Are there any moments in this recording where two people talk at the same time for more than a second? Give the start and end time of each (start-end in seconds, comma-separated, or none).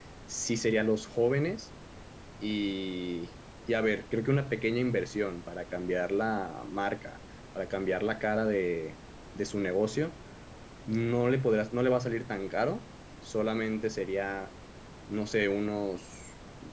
none